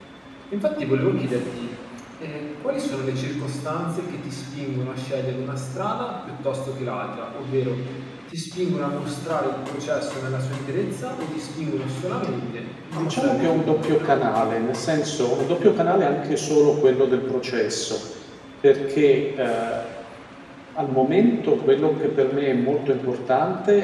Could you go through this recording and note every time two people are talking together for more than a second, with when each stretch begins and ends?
12.9-14.2

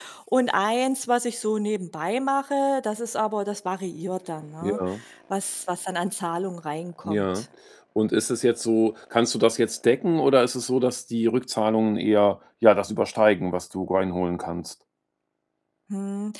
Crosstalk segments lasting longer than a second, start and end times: none

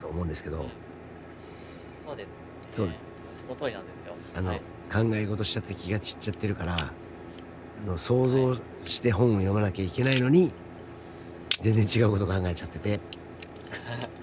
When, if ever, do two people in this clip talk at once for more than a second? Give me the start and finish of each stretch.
none

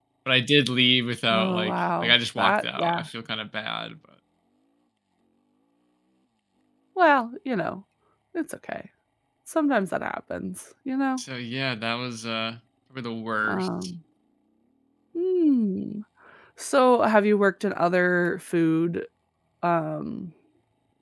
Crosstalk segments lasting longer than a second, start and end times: 1.3-3.0

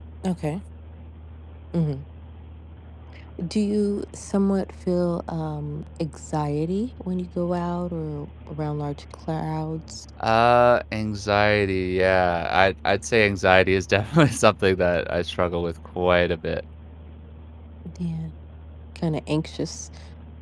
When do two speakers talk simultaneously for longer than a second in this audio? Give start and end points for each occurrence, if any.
none

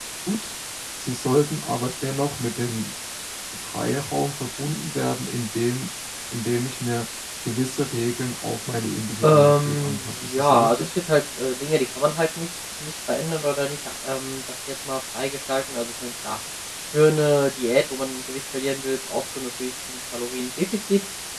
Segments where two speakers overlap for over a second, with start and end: 9.2-10.9

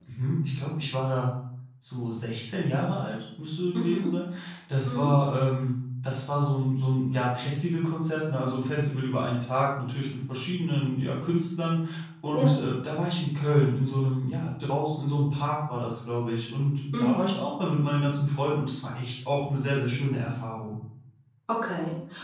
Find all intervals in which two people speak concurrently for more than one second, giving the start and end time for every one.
none

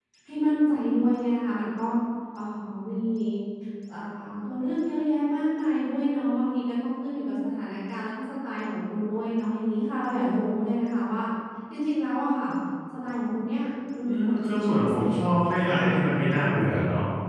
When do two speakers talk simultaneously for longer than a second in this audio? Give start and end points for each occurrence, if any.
14.1-16.4

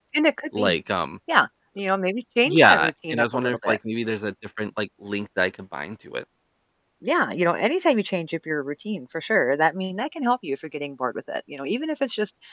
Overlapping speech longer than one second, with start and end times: 2.4-3.8

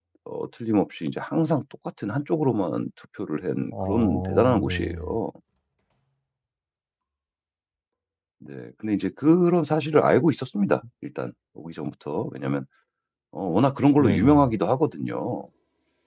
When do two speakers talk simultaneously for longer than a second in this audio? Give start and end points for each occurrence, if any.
3.7-5.0

